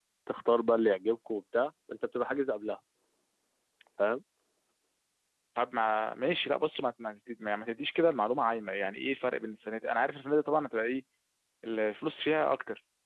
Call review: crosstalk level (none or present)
none